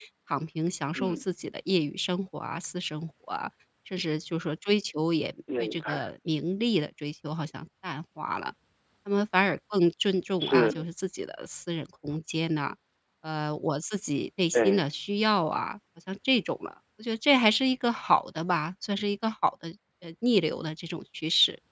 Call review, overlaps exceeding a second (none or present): none